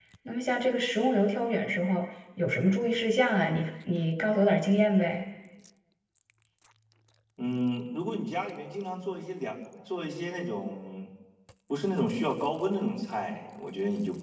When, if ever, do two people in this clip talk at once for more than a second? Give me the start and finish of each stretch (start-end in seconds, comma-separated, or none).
none